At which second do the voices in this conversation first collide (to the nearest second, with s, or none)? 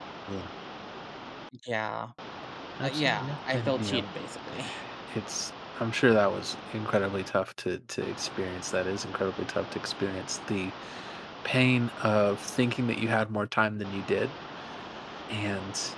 3 s